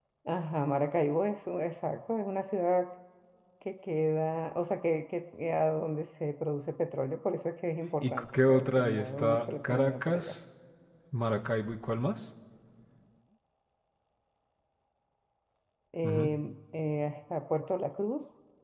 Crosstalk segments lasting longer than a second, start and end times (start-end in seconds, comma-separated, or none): 8.0-10.3